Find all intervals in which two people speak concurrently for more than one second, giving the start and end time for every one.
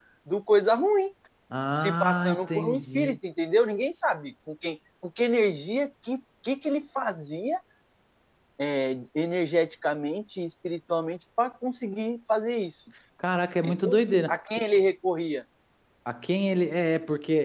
1.8-3.2

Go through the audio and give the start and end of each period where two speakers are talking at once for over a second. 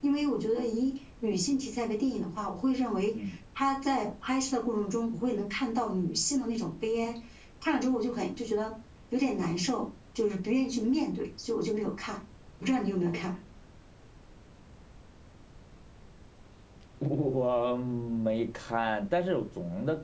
none

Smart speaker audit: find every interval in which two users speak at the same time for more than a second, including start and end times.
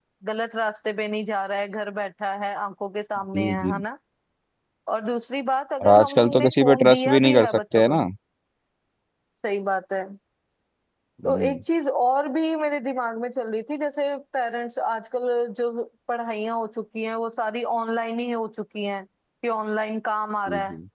5.8-8.0

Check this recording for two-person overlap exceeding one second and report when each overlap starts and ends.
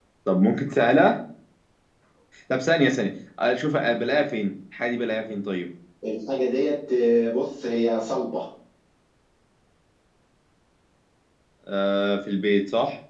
none

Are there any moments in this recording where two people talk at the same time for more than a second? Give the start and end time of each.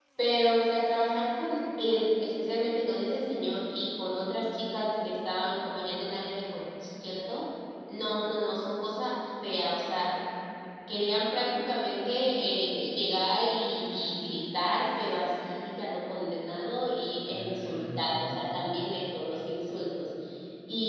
17.3-19.0

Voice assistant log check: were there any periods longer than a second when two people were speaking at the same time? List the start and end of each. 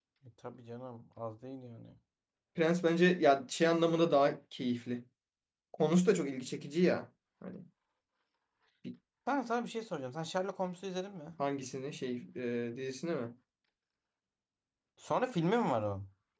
none

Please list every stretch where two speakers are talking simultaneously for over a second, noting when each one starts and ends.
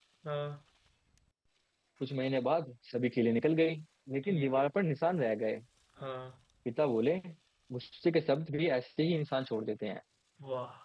none

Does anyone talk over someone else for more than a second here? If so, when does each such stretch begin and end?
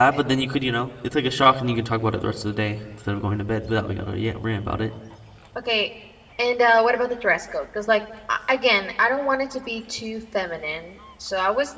none

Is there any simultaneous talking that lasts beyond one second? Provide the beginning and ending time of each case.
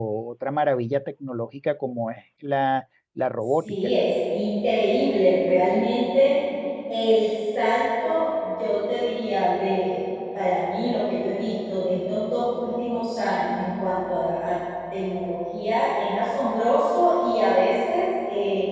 none

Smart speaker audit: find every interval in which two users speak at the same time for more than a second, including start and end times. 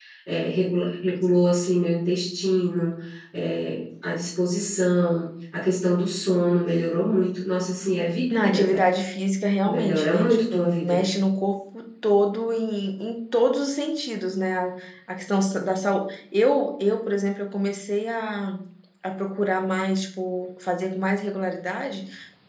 9.6-11.0

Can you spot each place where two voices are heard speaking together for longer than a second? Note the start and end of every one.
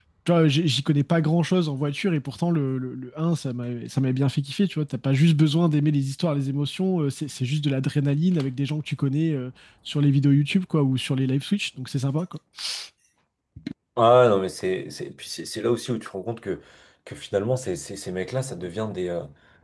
none

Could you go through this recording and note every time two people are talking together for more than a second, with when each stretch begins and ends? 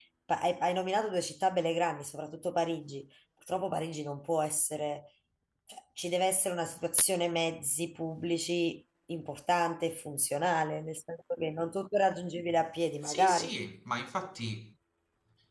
none

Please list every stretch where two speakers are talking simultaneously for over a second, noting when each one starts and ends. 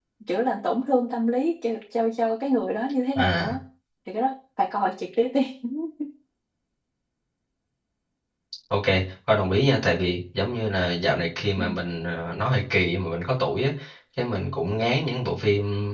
none

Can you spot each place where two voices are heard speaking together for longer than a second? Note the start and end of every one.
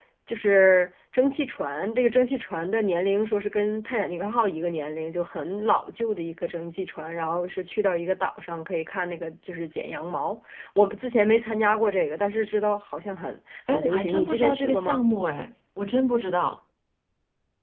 13.7-15.0

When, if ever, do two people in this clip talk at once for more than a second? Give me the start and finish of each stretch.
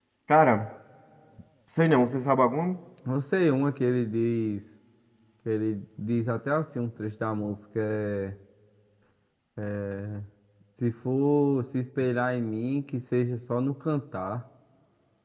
none

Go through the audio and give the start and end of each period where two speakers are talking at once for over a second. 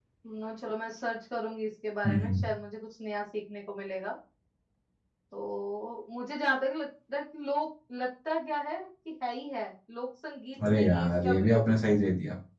10.6-12.0

